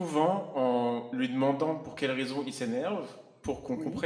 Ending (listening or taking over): listening